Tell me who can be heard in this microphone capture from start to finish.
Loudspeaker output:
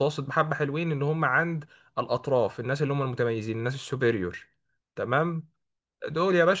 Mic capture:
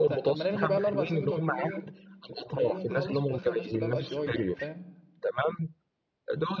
both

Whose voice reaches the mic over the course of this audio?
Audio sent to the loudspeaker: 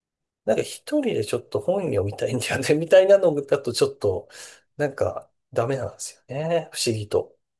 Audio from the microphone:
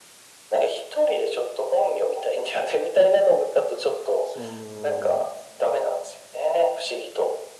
both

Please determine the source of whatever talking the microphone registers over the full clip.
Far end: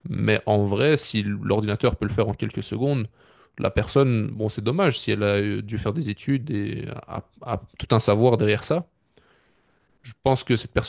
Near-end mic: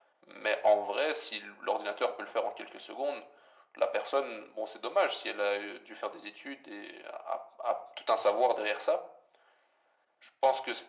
echo only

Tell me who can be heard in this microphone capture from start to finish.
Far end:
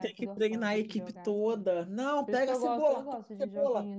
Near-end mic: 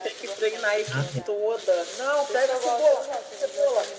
both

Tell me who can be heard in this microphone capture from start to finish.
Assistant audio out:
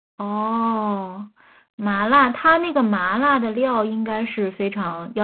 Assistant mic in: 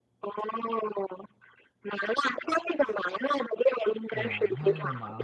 both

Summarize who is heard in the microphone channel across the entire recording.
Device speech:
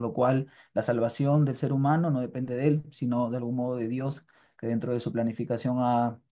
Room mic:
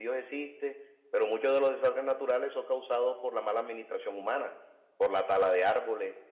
user only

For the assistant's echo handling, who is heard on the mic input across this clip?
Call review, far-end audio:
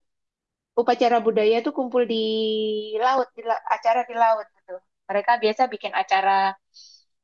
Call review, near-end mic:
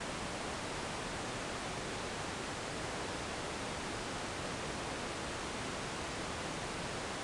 neither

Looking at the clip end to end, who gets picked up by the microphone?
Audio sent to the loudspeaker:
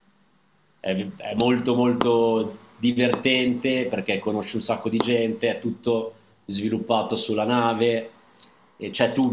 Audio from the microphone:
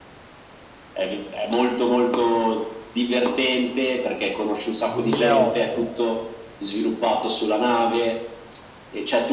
both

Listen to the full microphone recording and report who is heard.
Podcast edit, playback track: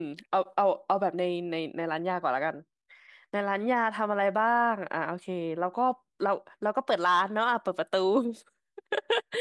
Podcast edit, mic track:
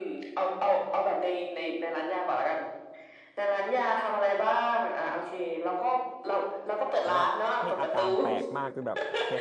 both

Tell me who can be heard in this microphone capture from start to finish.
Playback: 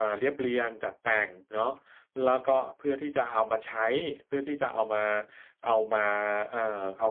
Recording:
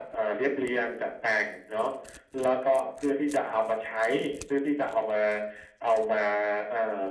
echo only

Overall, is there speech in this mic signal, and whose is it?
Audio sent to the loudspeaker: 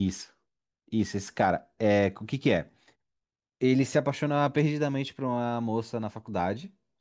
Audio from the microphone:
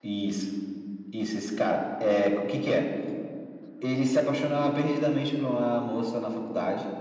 echo only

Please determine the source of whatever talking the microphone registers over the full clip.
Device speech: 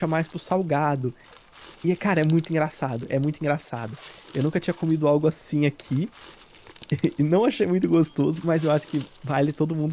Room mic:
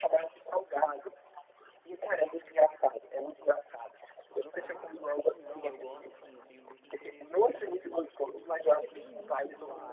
both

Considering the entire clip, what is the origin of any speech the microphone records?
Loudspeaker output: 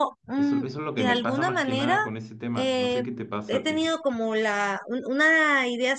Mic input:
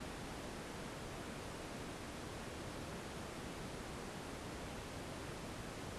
neither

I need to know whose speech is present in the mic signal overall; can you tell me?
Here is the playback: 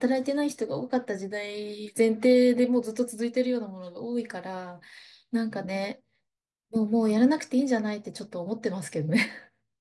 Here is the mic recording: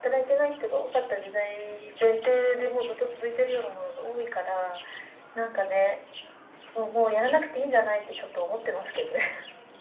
echo only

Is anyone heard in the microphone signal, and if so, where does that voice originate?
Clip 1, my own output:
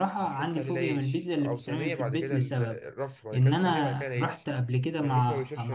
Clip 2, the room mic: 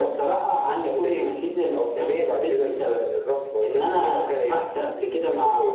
echo only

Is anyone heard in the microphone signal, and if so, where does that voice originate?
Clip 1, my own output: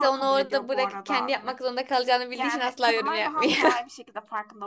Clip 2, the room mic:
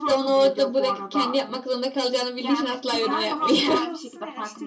both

